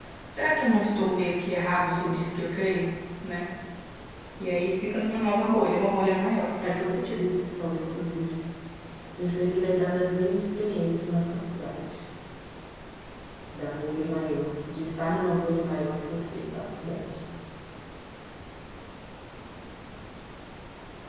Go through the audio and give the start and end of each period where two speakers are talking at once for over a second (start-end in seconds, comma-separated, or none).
none